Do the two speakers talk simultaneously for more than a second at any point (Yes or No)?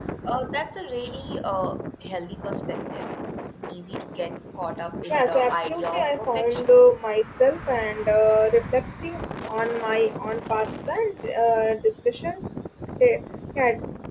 Yes